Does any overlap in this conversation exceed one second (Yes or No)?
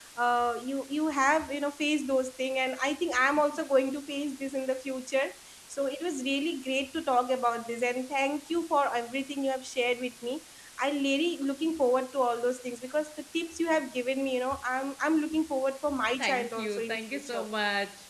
Yes